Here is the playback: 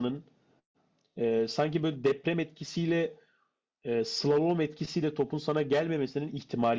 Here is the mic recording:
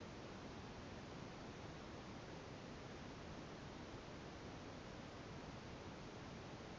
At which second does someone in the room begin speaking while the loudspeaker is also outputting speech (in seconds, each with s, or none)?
none